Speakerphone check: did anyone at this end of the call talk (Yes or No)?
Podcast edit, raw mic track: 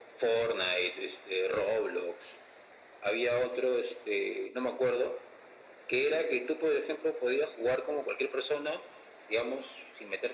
No